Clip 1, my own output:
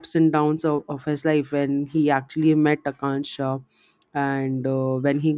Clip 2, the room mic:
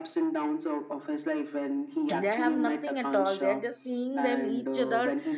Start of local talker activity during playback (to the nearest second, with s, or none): 2 s